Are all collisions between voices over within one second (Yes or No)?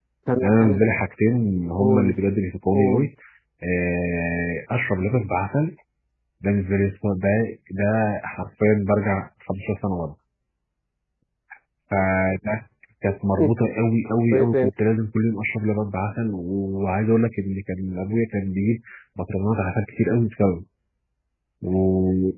Yes